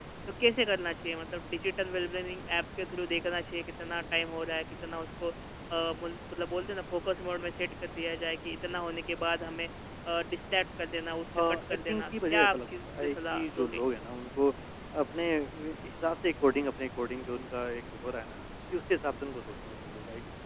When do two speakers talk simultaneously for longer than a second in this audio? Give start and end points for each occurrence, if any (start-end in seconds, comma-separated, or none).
11.3-13.8